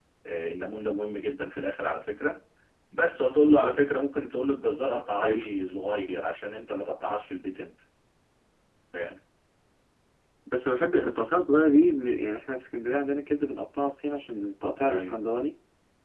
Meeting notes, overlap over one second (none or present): none